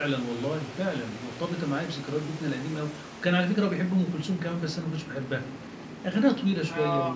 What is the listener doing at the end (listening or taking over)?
listening